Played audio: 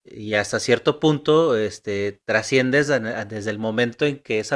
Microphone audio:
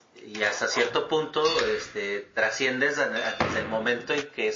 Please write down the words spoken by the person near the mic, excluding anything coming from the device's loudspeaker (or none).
none